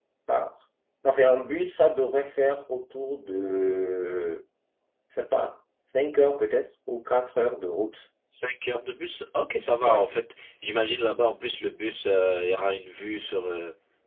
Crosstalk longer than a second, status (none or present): none